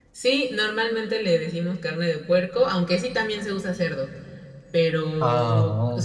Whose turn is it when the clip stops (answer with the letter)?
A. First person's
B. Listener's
A